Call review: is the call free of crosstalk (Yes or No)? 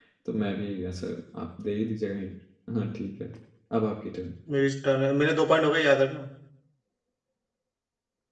Yes